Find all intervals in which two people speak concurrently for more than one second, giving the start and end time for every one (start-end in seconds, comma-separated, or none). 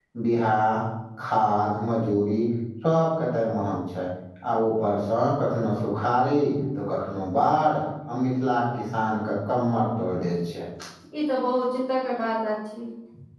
none